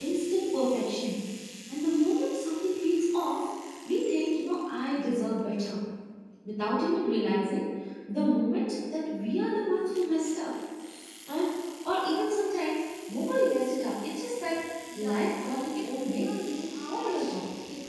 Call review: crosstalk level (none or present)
present